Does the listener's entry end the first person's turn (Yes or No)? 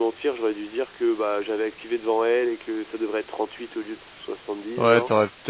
Yes